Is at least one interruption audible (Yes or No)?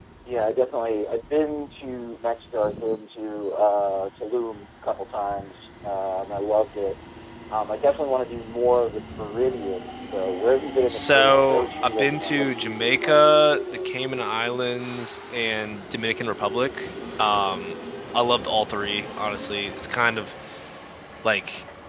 Yes